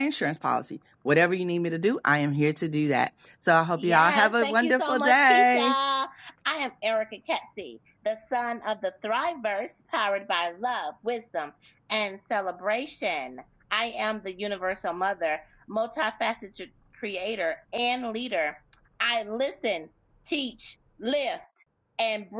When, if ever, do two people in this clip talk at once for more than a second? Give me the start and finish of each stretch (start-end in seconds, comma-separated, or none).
3.8-5.7